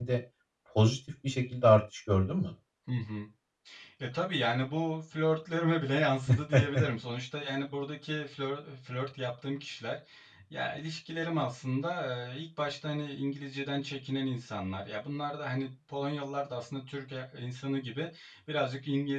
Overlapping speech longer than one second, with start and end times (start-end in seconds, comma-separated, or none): none